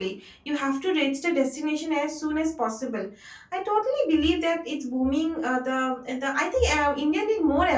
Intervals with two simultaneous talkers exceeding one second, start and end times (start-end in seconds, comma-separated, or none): none